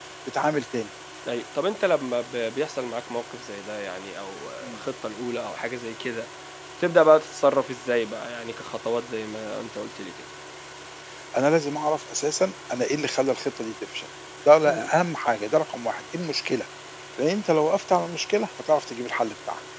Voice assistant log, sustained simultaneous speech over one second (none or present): none